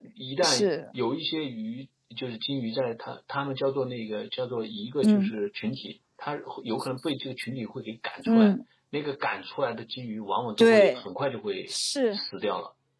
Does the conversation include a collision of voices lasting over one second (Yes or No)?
No